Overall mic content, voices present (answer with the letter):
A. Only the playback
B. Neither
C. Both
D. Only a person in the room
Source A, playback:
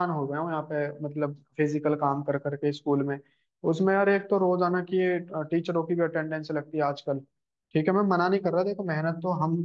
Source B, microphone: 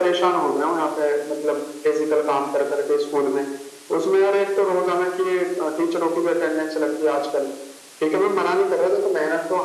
A